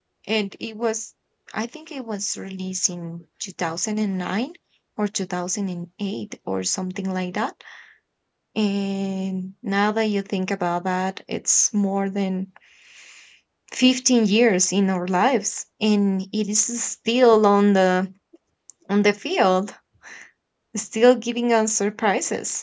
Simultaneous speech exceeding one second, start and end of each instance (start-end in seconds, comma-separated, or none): none